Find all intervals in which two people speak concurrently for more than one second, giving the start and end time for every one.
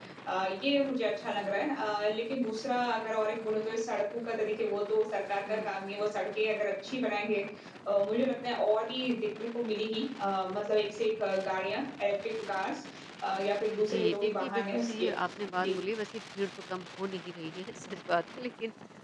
13.8-15.1

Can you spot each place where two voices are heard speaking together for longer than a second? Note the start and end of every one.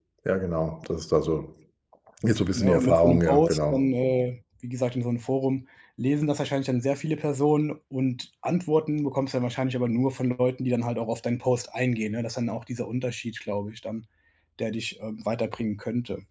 2.6-3.9

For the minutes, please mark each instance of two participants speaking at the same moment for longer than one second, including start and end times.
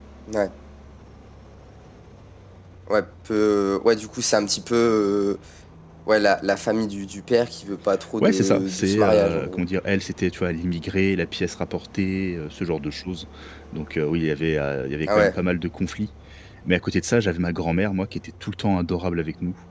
8.2-9.6

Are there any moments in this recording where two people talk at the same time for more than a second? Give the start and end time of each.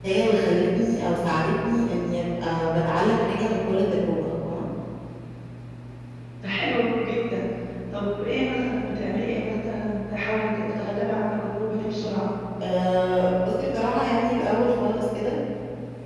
none

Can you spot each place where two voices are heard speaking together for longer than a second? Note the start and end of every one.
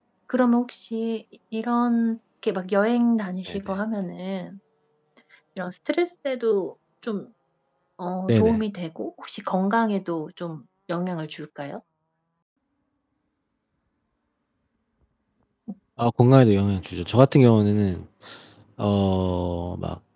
none

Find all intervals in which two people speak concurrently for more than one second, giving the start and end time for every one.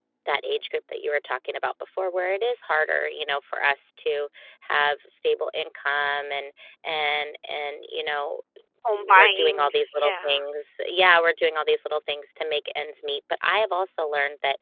8.9-10.4

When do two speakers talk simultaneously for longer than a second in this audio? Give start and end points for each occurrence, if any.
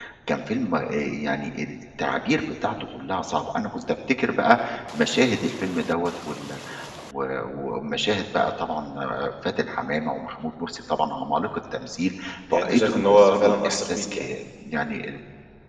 12.5-14.2

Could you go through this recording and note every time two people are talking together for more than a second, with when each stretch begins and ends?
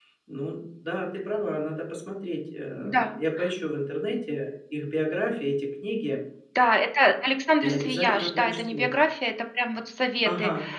7.6-8.9

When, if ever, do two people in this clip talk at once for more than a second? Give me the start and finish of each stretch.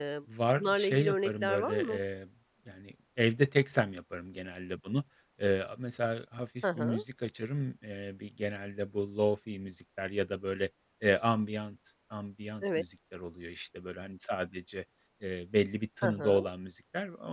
0.6-2.0

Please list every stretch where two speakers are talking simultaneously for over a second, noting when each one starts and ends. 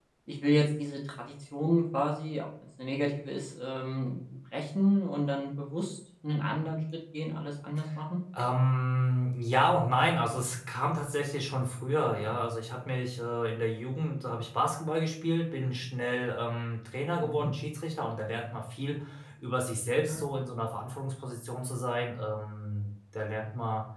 none

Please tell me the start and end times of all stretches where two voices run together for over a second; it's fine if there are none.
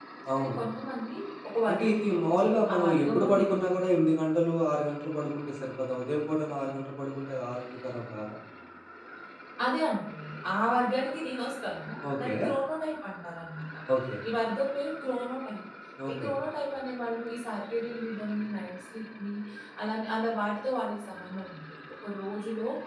1.7-3.6

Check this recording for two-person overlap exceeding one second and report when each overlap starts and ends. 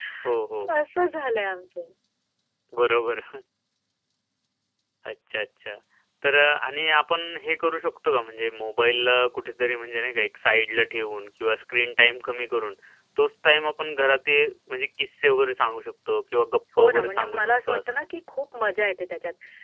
16.8-18.0

